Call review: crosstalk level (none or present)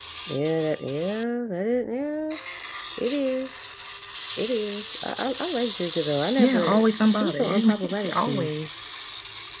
present